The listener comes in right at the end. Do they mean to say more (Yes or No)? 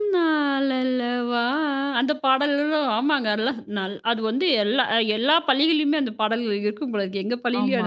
Yes